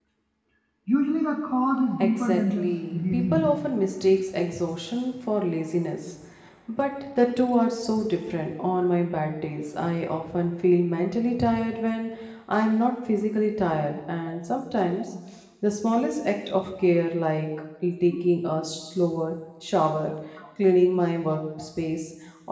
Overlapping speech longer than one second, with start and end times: 2.0-3.5

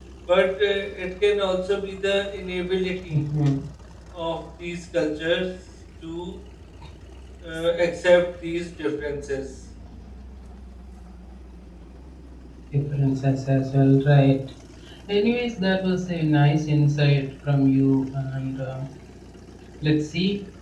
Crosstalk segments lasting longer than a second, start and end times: none

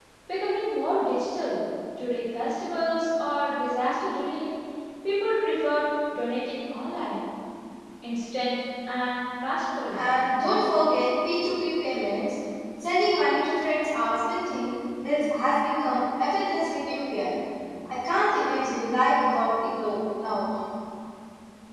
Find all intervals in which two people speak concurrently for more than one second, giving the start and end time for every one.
none

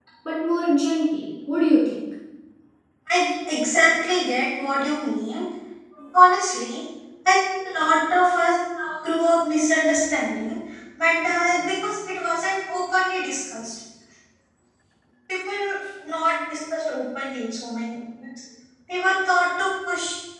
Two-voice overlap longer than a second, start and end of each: none

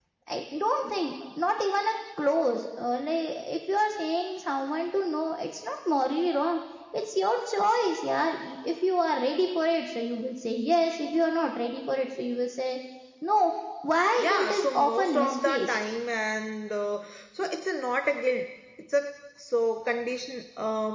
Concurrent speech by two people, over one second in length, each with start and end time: 14.2-15.8

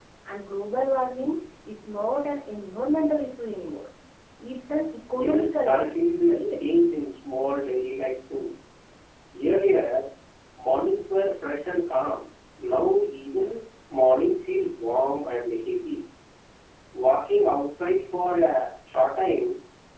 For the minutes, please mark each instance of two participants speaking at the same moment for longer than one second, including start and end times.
5.1-6.4

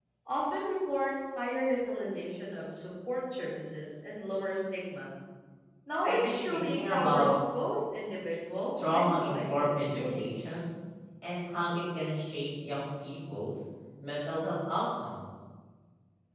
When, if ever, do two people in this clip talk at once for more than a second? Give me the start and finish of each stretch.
6.0-7.3, 8.9-10.6

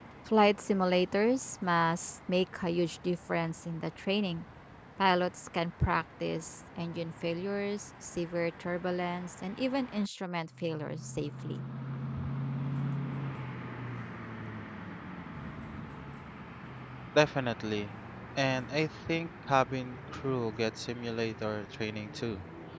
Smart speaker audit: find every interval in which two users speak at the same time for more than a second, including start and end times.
none

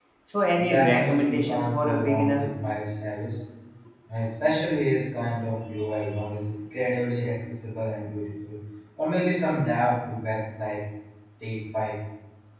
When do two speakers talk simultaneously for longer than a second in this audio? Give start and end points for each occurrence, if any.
0.6-2.5

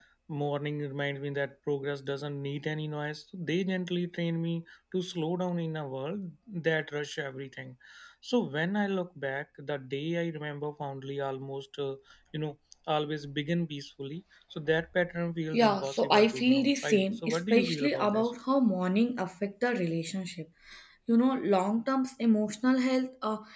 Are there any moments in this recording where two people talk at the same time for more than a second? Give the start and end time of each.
15.5-18.3

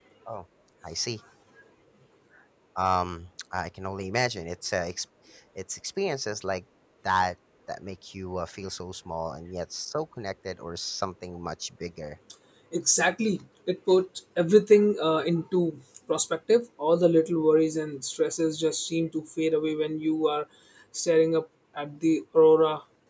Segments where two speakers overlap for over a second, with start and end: none

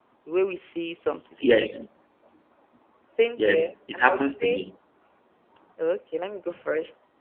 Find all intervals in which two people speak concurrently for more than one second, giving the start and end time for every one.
3.4-4.6

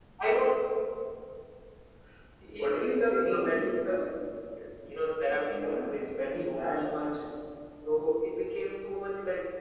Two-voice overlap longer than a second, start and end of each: 2.6-4.0, 5.2-6.7

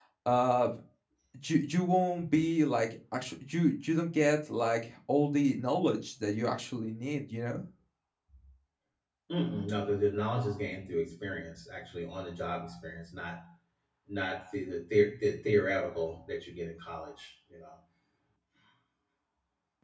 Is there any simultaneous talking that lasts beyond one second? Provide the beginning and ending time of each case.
none

